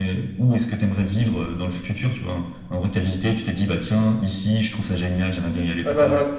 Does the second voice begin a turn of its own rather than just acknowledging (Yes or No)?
Yes